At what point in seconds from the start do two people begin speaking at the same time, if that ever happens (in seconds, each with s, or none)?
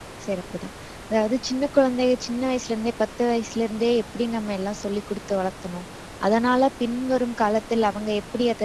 none